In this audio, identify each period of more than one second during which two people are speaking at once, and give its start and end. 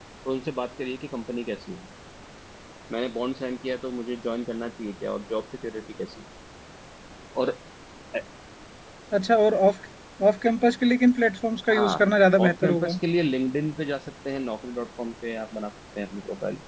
11.7-13.0

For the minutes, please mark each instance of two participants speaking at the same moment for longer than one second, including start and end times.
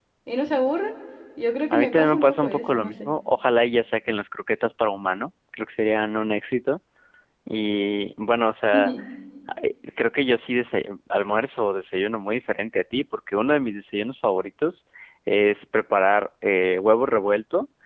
1.7-3.1

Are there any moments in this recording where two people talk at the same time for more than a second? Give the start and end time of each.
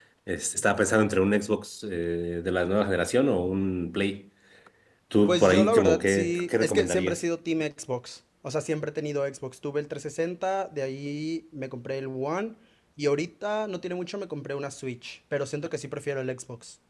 5.3-7.2

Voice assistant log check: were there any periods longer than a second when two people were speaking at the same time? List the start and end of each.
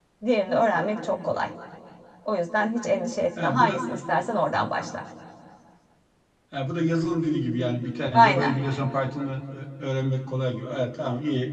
none

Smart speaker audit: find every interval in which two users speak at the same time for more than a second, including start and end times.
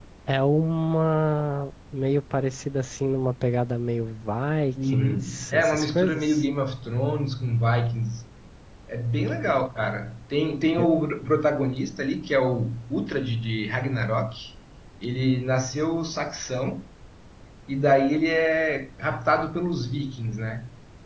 4.9-6.4

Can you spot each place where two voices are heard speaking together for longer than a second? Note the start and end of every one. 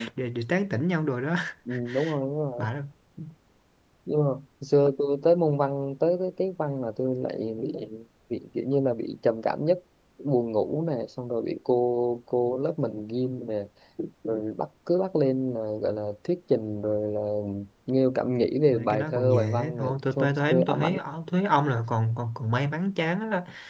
18.7-21.0

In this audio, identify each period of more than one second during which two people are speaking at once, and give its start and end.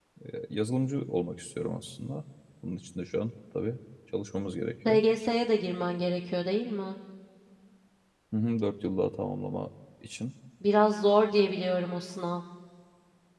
none

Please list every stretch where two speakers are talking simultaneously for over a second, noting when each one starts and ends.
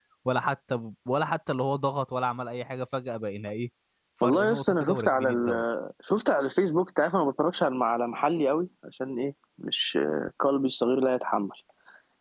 4.2-5.6

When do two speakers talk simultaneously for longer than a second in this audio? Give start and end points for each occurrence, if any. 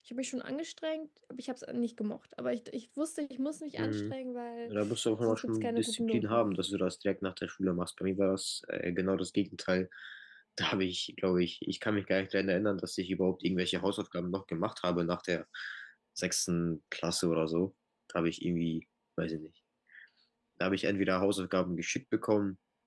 5.2-6.5

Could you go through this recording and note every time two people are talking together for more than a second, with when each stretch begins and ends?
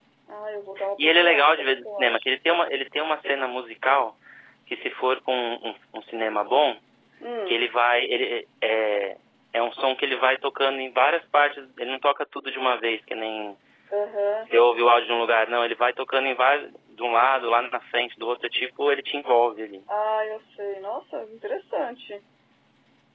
1.1-2.2

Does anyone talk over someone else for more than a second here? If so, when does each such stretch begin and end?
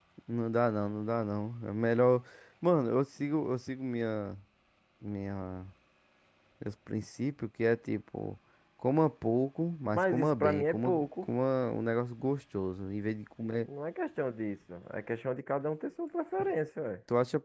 9.9-11.3

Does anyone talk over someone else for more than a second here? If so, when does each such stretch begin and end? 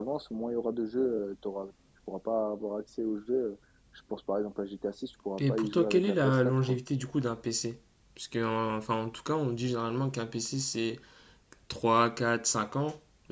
5.4-6.8

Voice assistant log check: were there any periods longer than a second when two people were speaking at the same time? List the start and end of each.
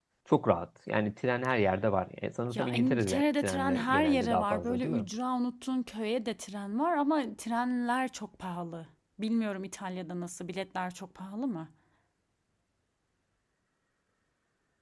2.5-5.0

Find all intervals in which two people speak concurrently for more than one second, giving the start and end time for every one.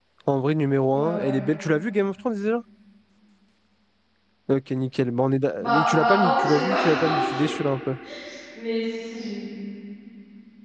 5.6-7.5

